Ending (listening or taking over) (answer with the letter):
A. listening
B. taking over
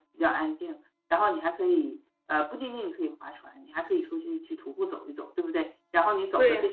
A